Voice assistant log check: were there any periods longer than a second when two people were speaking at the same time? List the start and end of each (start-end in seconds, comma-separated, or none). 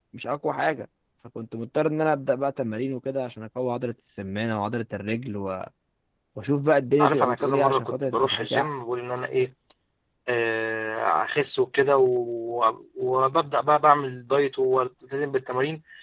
7.0-8.8